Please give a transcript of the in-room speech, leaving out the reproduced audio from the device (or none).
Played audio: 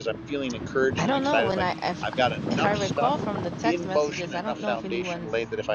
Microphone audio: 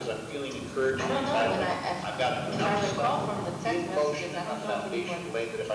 none